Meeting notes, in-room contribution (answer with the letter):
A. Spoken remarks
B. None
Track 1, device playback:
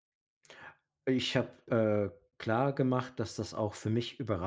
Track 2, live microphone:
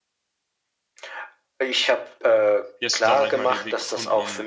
A